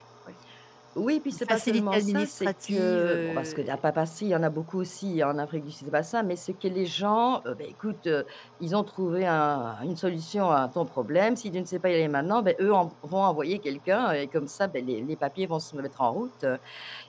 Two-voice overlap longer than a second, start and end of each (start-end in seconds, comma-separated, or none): 1.3-3.7